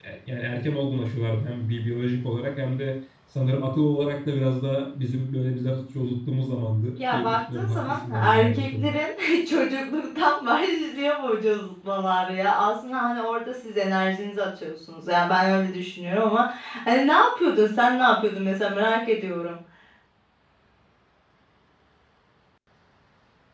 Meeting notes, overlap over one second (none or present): present